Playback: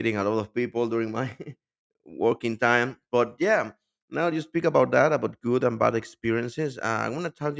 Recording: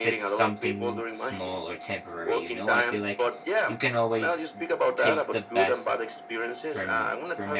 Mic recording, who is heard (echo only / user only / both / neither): both